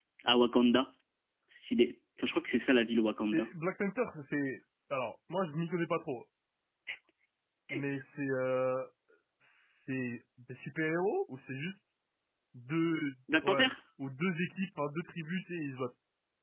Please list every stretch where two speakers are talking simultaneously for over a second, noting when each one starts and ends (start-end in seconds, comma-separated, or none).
none